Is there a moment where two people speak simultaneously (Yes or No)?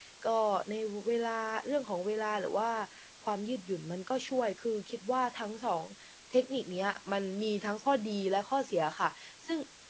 No